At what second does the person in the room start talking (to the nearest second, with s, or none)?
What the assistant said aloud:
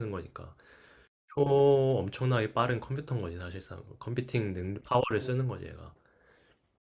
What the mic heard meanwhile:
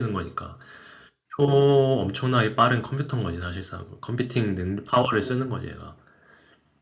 none